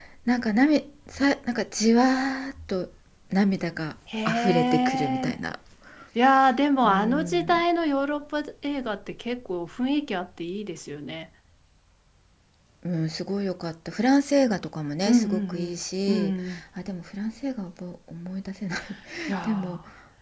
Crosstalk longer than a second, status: present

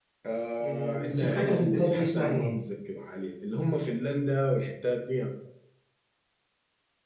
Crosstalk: present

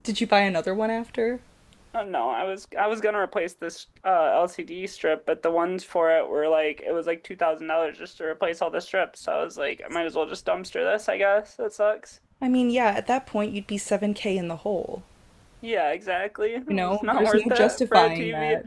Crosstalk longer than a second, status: present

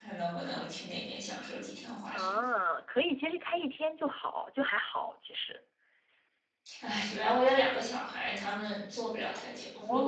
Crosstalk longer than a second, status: none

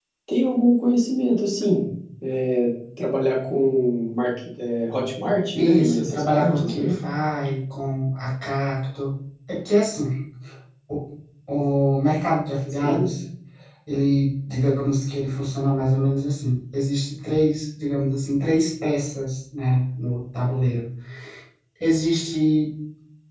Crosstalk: present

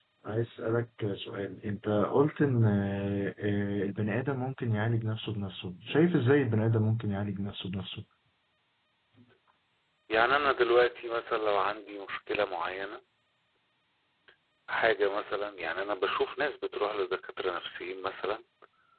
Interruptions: none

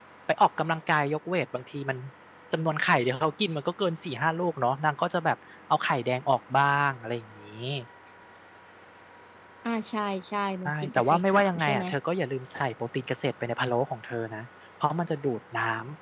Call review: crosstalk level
present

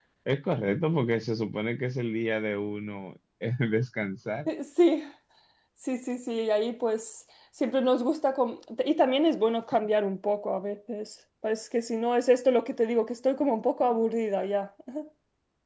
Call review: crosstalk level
none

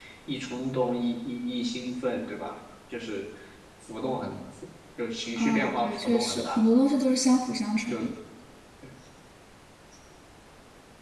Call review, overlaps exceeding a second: present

